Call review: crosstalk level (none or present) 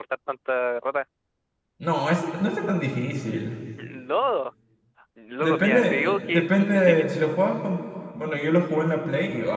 present